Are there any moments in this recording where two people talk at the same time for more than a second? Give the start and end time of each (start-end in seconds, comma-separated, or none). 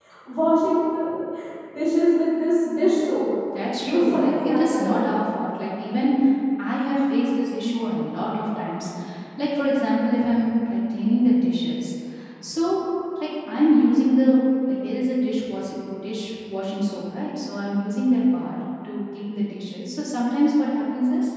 3.8-5.1